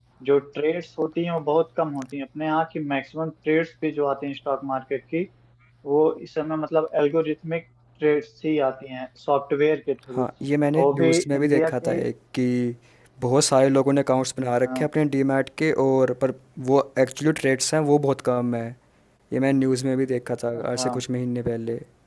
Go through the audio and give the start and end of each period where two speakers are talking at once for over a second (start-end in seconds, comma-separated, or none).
10.7-12.0